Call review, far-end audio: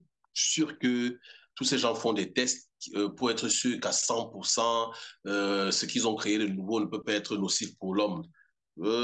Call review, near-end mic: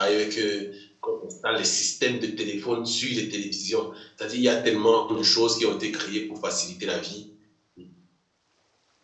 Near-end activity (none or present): present